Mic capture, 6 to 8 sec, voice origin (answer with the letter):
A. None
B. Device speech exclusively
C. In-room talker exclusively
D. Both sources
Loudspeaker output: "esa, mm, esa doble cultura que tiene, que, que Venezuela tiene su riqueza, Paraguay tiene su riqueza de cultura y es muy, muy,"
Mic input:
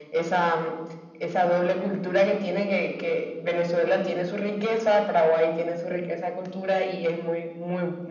B